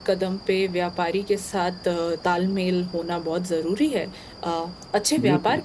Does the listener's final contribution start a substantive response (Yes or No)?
No